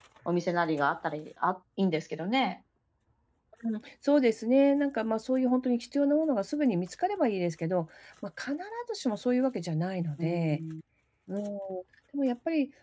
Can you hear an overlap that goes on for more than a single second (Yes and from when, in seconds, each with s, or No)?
No